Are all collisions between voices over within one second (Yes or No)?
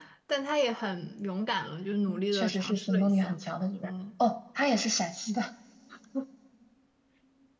No